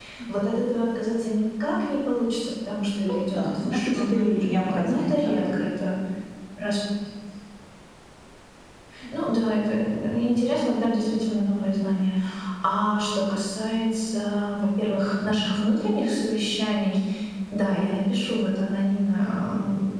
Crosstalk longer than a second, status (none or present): present